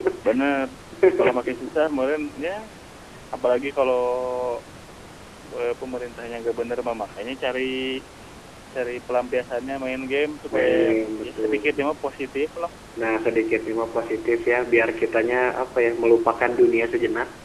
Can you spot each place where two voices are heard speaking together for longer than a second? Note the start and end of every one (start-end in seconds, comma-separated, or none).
10.5-11.8